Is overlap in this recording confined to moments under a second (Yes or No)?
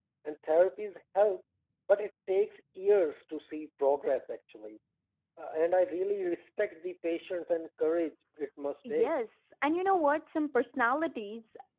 Yes